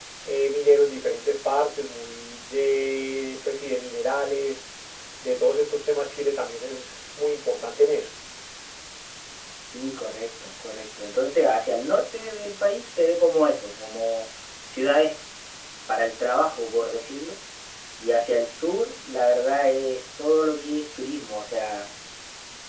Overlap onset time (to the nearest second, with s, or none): none